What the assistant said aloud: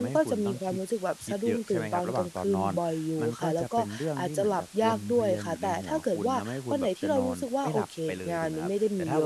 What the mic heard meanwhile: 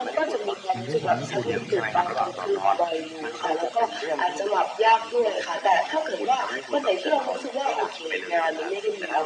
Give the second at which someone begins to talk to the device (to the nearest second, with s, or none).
1 s